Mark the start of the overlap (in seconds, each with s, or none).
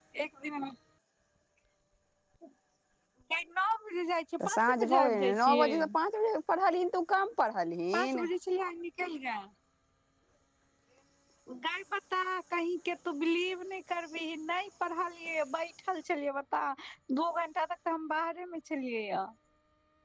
4.5 s